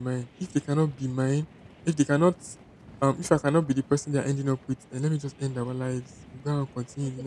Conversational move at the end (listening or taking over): taking over